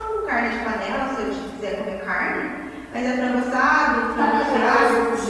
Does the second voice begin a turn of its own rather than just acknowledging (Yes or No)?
Yes